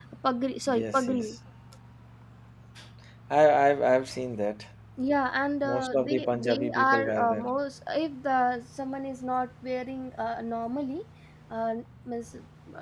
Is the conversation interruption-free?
No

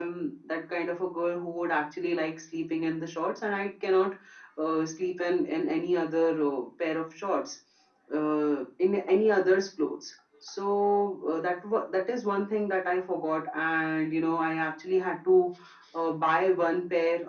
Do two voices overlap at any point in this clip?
No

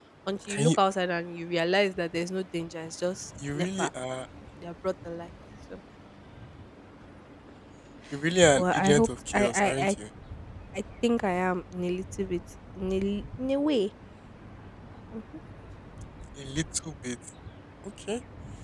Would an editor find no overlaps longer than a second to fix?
No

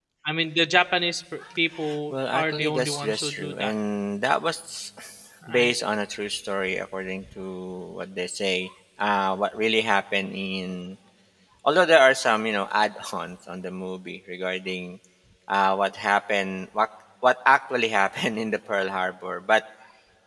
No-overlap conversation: No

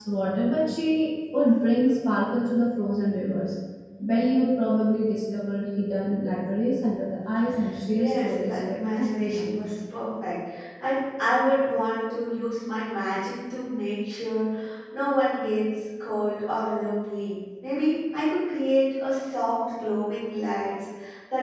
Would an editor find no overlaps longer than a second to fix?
No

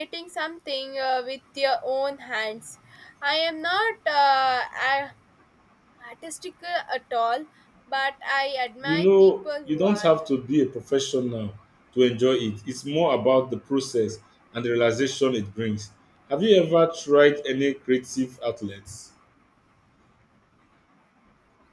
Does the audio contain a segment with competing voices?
Yes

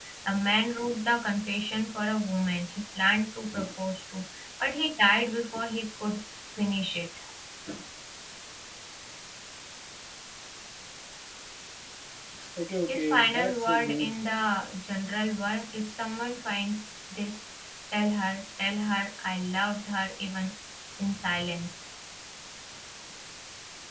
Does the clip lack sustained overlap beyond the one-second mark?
No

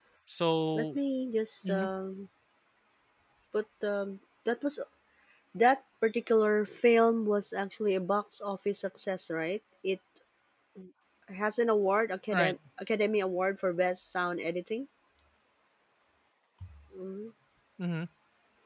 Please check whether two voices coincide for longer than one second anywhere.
No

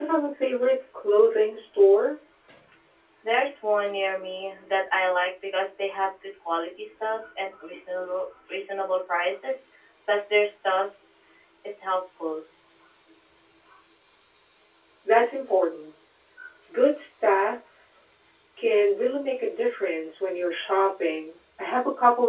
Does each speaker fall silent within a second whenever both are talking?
Yes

